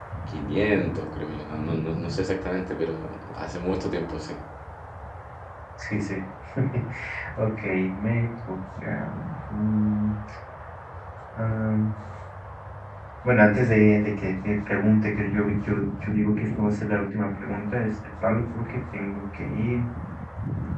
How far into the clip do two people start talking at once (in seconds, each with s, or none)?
none